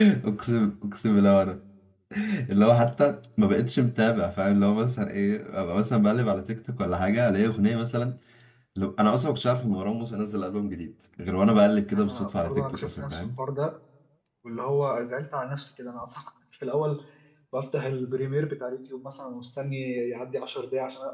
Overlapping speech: Yes, from 11.9 s

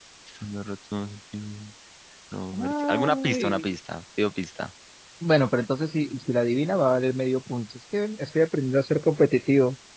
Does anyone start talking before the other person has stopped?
Yes, from 2.5 s

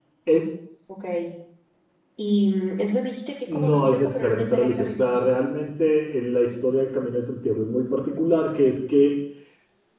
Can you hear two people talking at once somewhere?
Yes, from 3.5 s

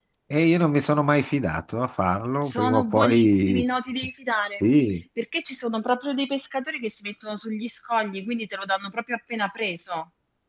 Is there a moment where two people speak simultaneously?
Yes, from 2.4 s

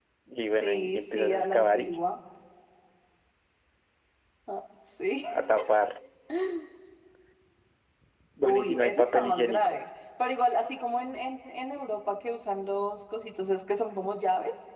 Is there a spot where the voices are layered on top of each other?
Yes, from 0.6 s

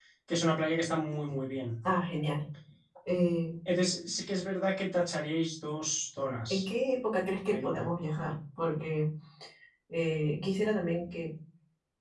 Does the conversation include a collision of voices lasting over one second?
No

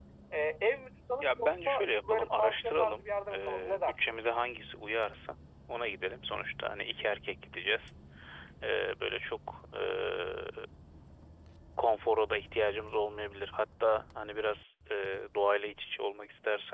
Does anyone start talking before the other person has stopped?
Yes, from 1.2 s

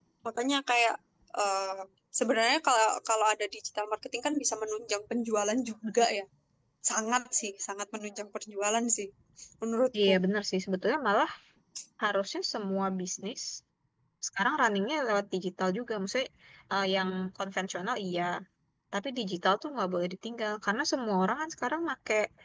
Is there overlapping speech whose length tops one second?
No

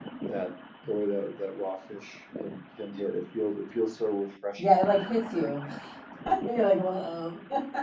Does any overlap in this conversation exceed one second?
No

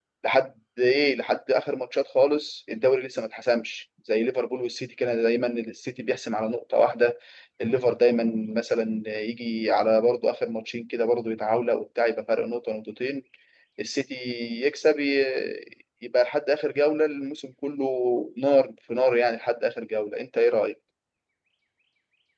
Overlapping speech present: No

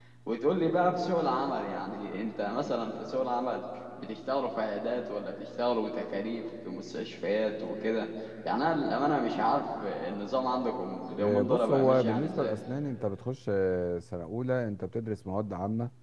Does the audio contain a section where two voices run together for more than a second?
Yes, from 11.2 s

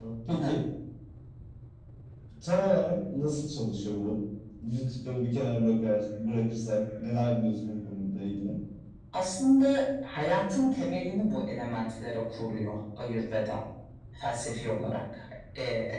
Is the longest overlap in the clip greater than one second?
No

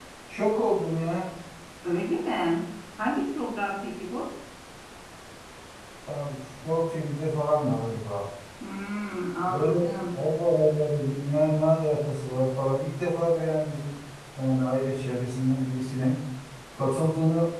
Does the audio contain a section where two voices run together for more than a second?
No

